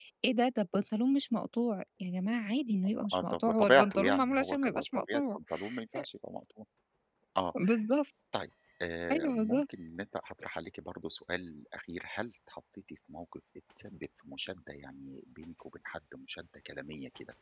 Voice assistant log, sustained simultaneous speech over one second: present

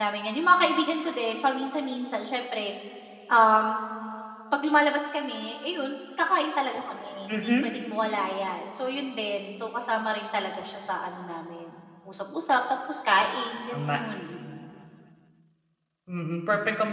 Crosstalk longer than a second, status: none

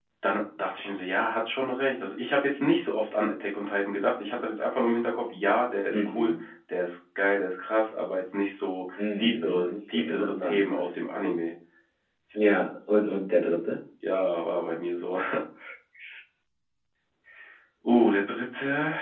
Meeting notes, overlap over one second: present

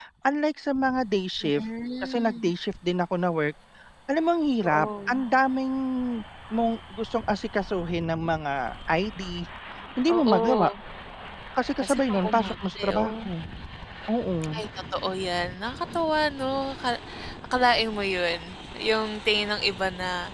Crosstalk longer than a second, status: present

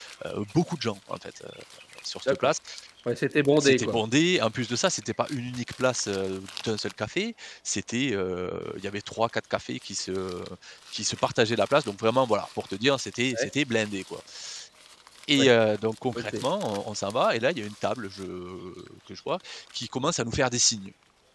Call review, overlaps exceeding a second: none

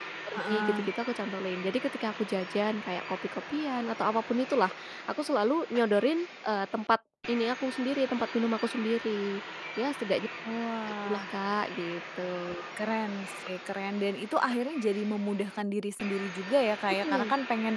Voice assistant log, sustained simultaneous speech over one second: none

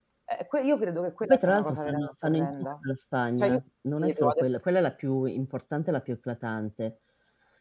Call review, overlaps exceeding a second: present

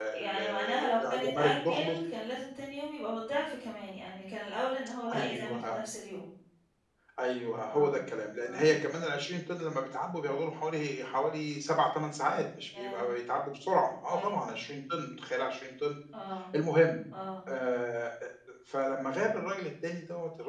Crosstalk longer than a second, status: present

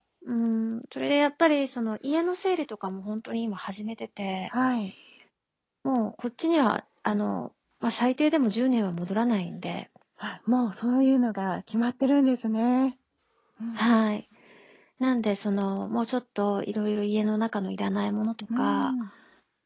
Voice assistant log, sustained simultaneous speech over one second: none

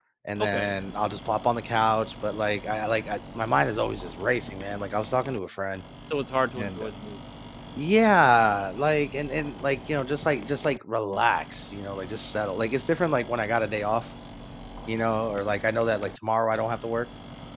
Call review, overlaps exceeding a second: none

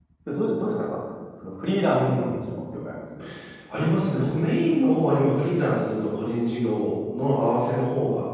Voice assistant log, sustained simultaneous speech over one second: none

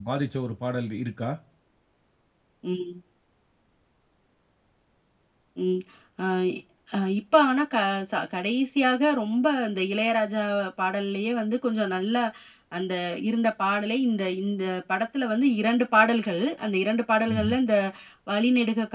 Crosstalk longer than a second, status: none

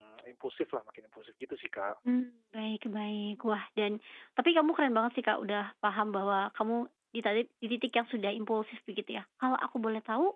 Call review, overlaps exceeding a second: none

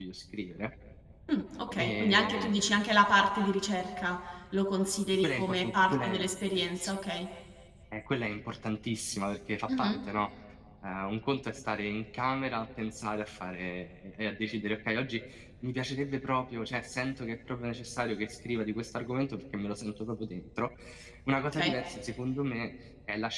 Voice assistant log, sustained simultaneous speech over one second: present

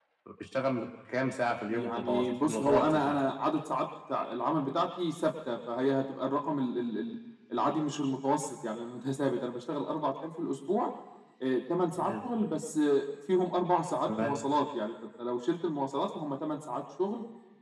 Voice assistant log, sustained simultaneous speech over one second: present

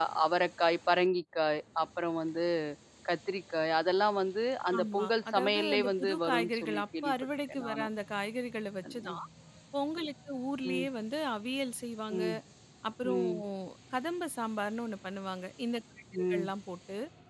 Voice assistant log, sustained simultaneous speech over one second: present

